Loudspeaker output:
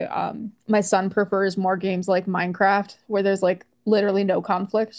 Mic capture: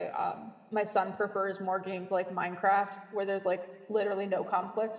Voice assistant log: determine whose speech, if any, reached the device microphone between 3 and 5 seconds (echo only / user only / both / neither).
echo only